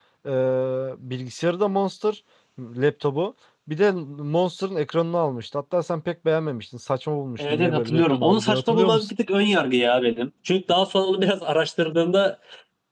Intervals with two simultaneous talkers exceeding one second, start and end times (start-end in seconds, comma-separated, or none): 7.4-9.1